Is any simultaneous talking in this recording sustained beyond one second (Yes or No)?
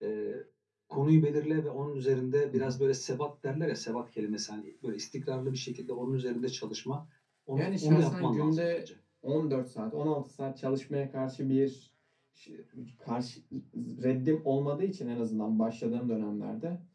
Yes